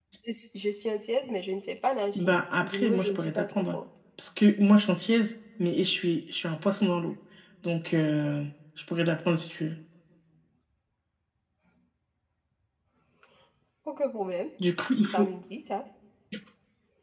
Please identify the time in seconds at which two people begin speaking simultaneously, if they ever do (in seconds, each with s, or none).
2.1 s